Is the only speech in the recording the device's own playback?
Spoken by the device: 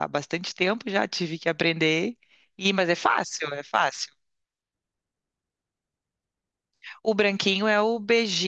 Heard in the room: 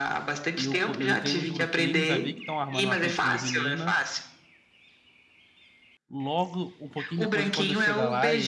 No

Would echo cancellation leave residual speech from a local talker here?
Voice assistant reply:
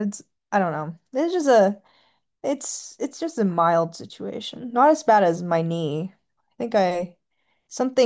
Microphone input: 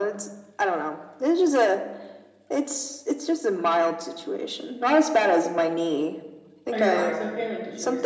Yes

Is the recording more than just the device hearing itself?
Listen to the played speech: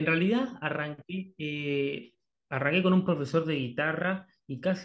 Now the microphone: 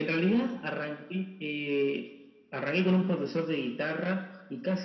No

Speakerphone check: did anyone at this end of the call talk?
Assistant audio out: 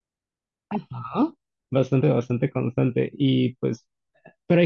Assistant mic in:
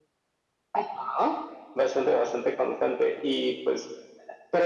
No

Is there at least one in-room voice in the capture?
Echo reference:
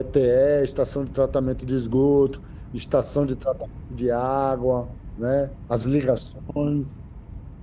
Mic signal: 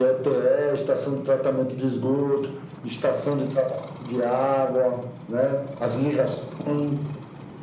No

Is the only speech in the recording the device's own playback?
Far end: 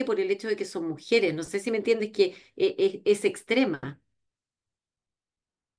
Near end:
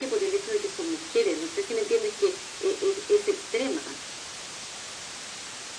Yes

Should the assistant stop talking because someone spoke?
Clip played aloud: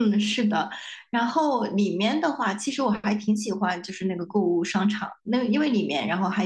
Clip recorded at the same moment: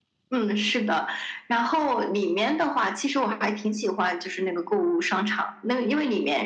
No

